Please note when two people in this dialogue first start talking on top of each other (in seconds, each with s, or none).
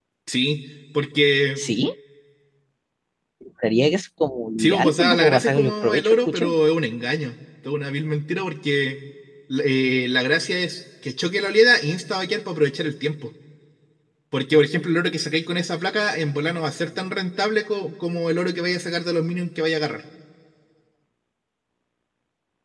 4.6 s